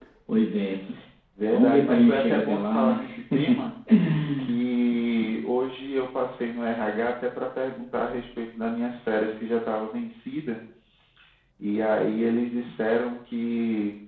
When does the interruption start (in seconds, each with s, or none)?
1.5 s